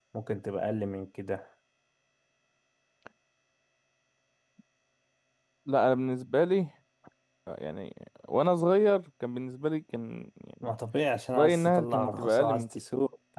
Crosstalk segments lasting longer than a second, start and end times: 11.3-12.7

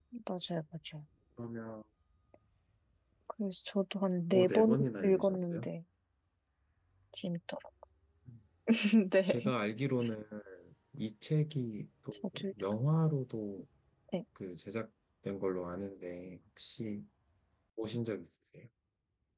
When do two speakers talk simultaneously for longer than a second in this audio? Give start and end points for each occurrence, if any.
4.3-5.7

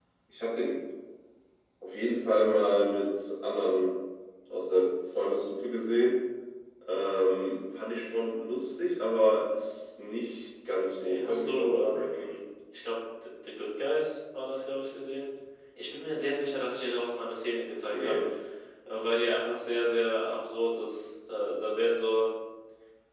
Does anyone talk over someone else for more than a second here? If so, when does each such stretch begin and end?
10.7-12.3

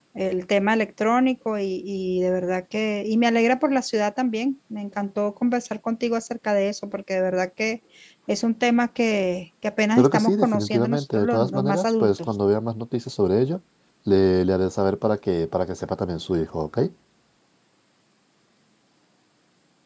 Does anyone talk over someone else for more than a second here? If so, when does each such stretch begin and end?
10.0-12.3

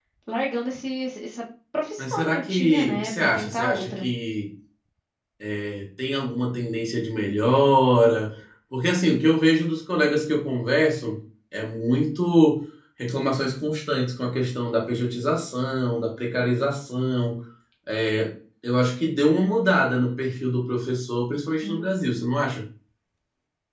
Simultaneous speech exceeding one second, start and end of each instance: 2.0-4.1

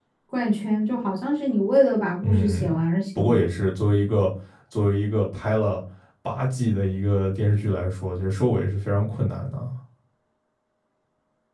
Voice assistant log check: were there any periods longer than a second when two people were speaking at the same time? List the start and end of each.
none

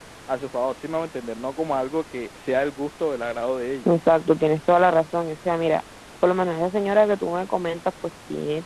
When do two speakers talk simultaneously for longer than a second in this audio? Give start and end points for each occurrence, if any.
none

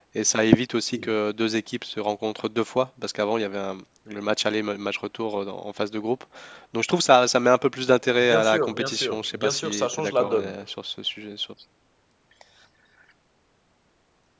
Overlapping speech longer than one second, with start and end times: 8.2-10.6

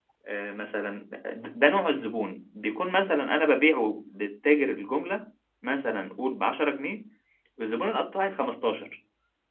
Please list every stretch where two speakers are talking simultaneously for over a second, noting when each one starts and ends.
none

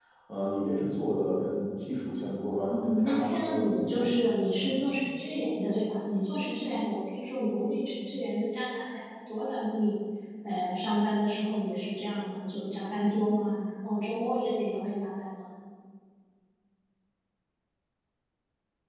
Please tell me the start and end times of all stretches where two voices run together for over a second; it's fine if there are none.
2.7-4.1

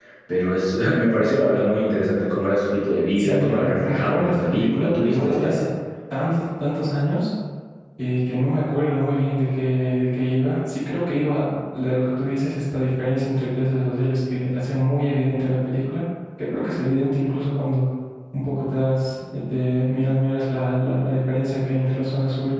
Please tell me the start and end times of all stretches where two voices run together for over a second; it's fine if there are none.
3.2-5.5

